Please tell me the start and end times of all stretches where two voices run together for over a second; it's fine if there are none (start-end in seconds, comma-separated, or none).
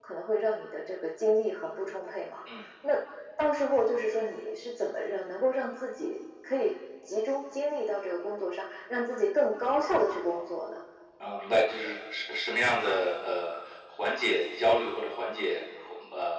none